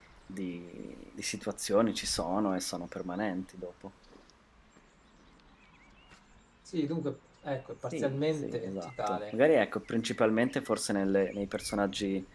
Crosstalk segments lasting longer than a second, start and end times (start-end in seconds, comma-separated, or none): 7.9-9.3